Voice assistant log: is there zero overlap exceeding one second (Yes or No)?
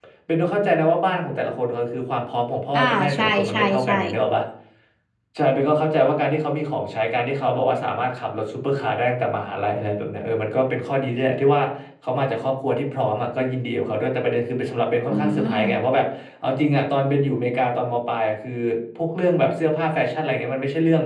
No